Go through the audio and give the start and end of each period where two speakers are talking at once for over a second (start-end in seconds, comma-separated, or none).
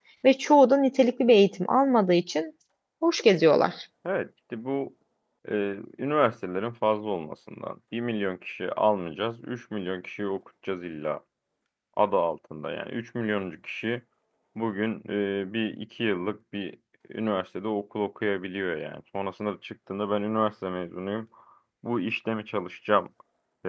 none